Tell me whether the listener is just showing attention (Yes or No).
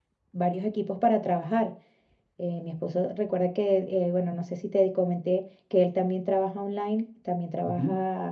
Yes